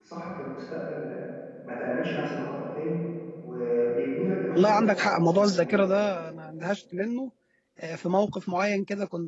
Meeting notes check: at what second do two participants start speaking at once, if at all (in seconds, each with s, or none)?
4.6 s